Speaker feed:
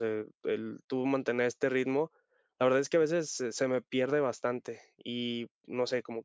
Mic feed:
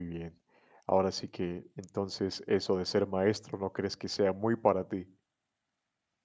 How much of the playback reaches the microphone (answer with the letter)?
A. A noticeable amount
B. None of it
B